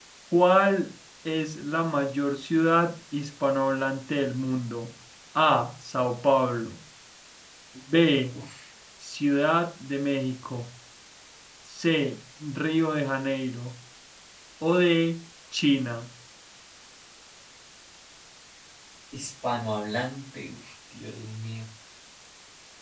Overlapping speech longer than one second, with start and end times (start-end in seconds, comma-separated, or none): none